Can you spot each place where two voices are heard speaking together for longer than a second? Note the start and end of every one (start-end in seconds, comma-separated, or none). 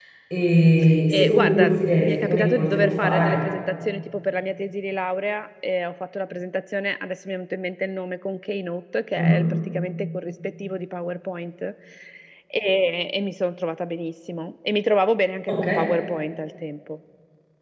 1.1-3.4